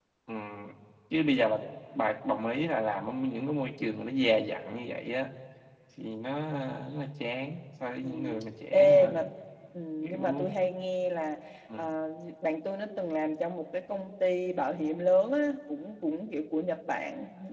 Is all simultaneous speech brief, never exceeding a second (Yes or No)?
Yes